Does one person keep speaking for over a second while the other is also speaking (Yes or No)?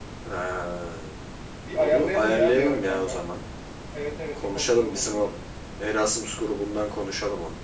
Yes